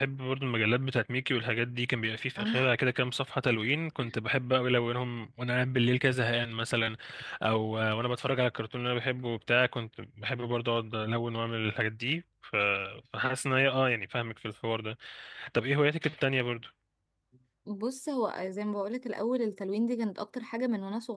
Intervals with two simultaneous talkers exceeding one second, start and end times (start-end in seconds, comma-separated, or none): none